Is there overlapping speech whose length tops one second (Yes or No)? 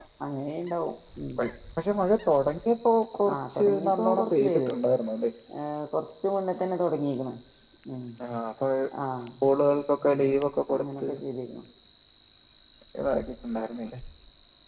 Yes